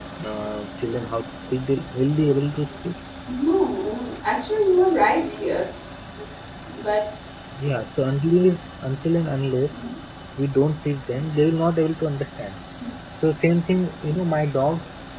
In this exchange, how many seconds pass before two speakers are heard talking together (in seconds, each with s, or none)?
none